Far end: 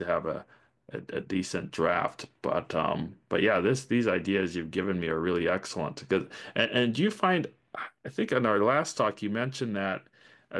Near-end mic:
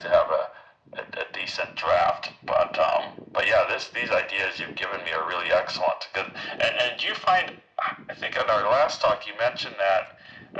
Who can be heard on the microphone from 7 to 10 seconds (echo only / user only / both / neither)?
echo only